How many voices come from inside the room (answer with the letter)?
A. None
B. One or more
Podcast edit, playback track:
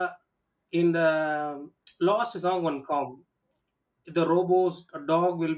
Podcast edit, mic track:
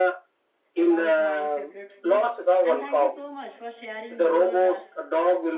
B